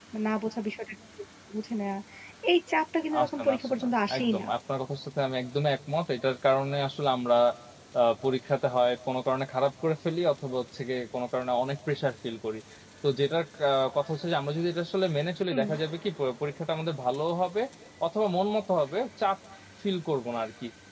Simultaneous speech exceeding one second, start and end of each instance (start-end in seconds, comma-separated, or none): 3.2-4.5